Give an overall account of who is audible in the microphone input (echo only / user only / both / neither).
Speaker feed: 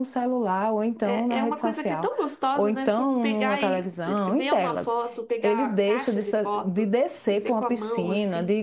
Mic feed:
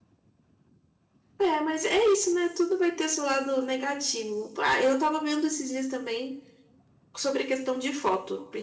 user only